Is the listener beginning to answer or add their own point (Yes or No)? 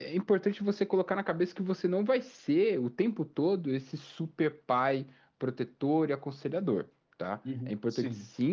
No